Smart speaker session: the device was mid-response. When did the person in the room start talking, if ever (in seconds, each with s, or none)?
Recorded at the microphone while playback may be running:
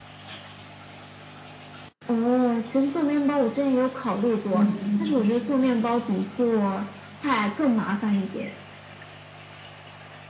4.5 s